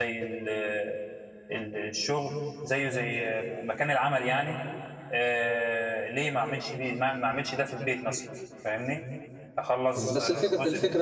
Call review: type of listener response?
taking over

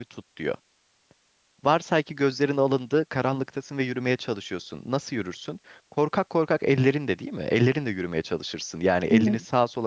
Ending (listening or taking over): listening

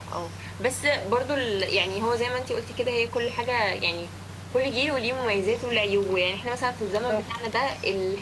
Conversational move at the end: listening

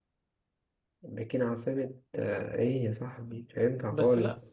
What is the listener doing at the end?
taking over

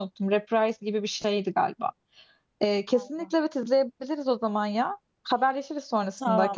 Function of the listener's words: taking over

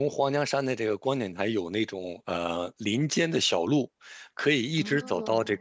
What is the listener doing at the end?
listening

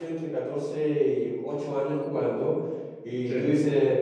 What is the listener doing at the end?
listening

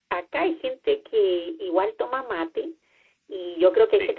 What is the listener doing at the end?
listening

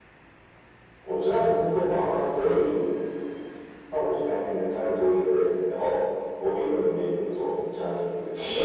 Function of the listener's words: taking over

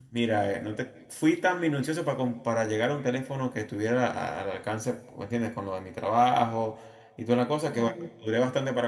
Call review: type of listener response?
listening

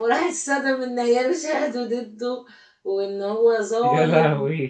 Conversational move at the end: listening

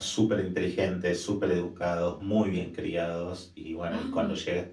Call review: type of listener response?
listening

